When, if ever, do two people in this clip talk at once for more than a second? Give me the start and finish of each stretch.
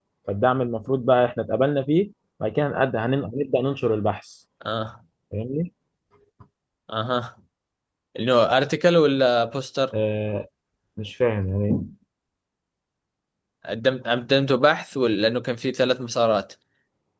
none

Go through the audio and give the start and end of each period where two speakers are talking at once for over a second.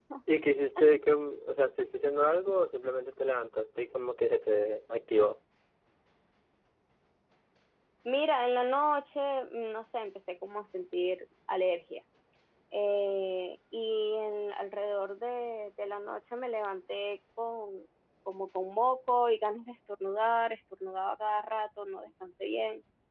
none

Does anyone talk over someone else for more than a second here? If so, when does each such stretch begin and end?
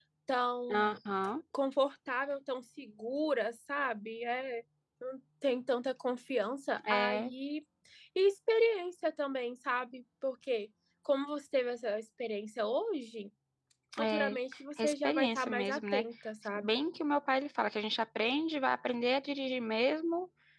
14.8-16.0

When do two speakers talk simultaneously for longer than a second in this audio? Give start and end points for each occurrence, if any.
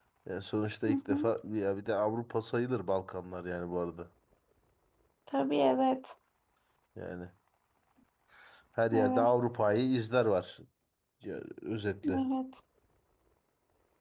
none

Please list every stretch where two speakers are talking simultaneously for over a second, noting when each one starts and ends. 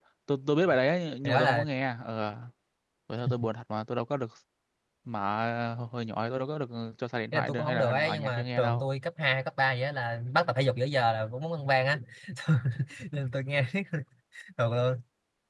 7.3-8.9

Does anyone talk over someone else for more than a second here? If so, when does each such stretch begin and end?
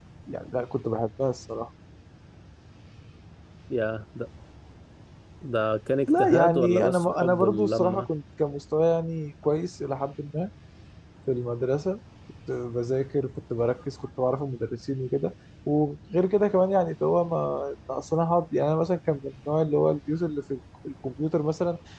6.1-8.1

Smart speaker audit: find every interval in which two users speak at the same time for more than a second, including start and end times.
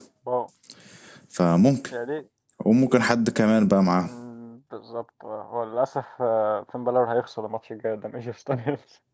none

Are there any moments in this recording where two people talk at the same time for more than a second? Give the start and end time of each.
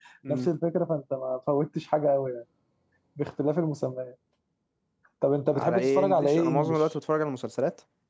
5.5-6.8

